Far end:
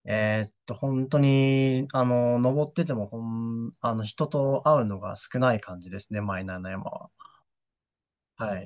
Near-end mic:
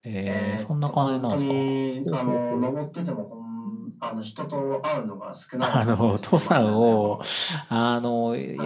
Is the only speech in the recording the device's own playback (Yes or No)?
No